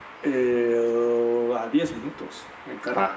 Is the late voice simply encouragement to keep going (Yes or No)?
Yes